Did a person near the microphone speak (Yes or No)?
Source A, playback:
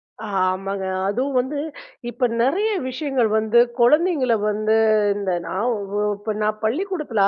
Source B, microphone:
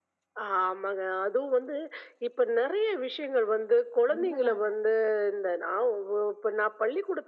Yes